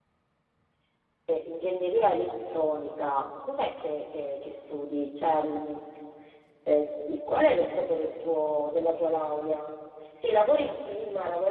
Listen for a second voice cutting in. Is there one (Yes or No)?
No